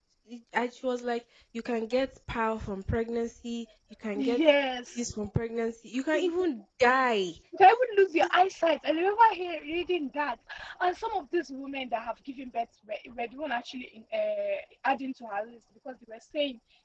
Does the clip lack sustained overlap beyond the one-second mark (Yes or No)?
Yes